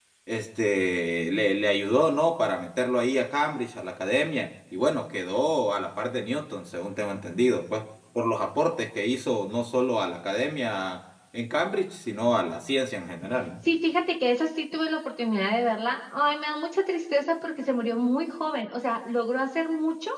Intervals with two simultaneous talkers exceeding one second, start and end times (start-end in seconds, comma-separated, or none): none